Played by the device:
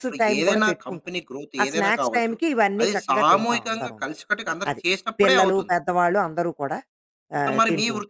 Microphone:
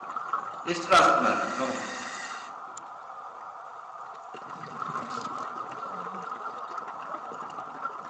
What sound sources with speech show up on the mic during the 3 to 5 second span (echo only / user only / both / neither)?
neither